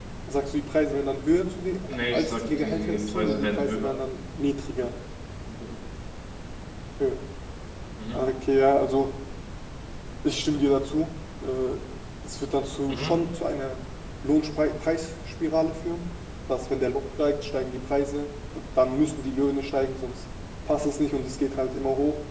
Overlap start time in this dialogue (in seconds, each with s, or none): 2.1 s